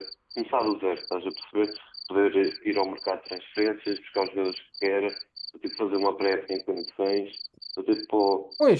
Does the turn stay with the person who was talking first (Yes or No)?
Yes